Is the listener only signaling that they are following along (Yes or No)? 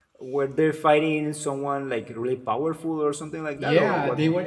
No